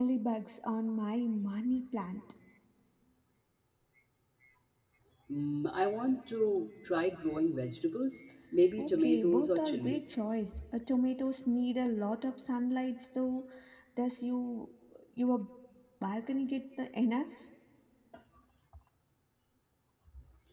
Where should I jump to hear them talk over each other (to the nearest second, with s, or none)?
9 s